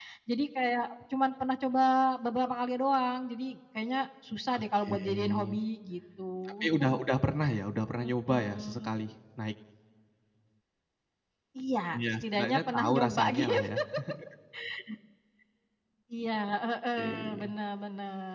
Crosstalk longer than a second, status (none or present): present